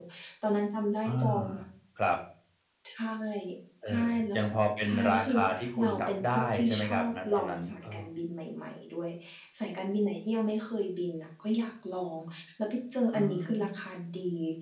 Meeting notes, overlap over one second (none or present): present